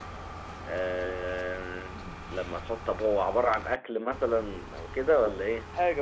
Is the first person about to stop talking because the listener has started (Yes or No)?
Yes